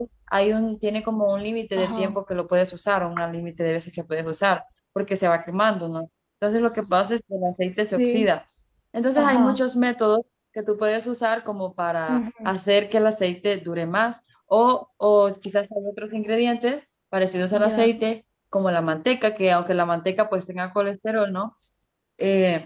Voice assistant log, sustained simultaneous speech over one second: none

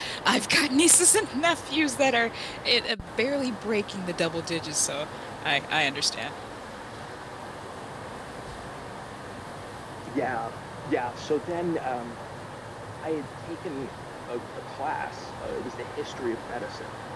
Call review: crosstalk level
none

